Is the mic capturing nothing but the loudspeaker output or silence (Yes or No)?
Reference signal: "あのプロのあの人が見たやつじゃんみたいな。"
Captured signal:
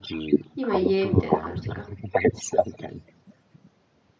No